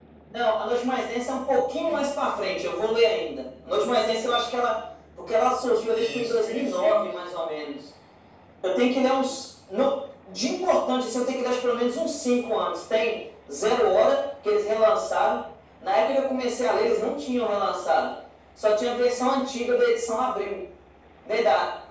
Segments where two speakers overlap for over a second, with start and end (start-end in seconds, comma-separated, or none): 5.9-7.1